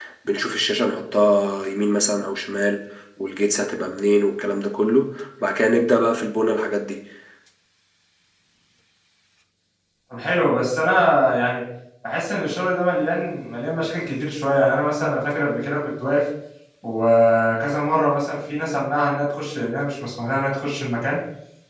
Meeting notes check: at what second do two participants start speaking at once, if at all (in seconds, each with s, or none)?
none